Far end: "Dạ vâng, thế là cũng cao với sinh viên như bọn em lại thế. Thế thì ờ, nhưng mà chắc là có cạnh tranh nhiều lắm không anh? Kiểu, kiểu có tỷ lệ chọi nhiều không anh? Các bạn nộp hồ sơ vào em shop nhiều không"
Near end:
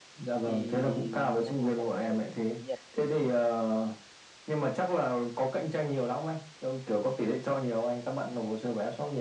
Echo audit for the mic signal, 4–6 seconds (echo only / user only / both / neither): echo only